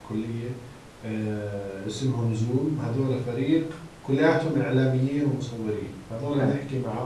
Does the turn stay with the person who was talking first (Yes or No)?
Yes